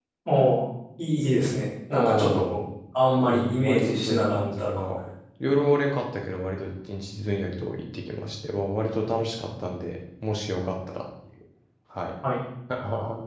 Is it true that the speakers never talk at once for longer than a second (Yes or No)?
No